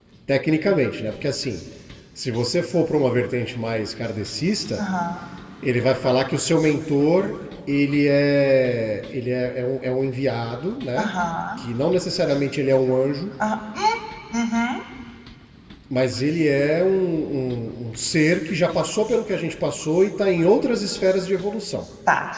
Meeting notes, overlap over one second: none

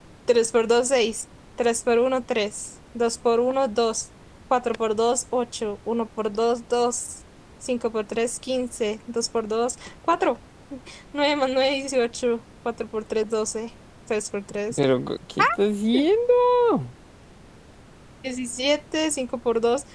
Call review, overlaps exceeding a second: none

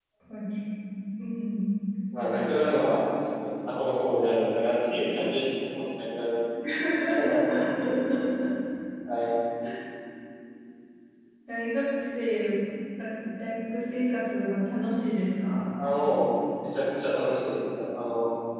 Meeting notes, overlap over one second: none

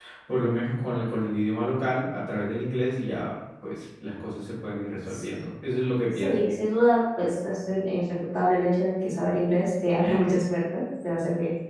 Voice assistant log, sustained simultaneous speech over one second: none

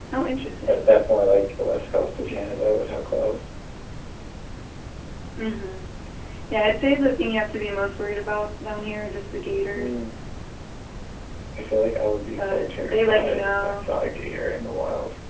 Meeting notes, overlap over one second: present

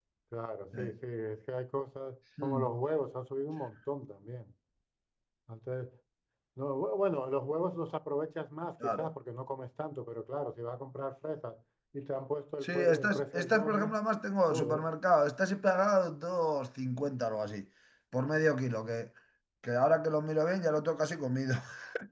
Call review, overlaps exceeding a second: present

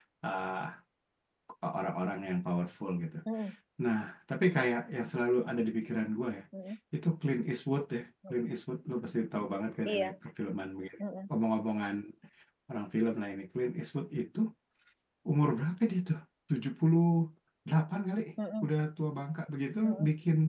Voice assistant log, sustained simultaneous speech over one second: none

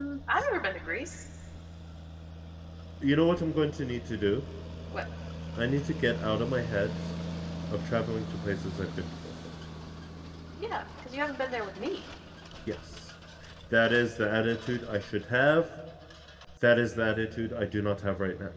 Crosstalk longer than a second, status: none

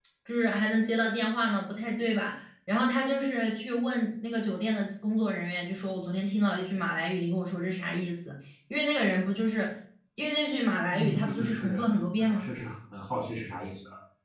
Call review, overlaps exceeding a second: present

